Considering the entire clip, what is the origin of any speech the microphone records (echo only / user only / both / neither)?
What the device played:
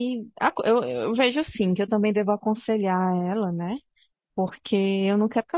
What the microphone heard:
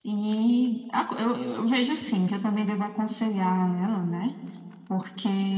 echo only